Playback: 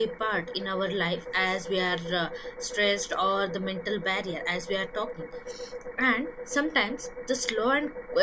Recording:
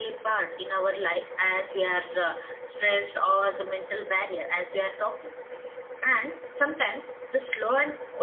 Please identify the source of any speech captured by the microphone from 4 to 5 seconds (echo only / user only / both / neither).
echo only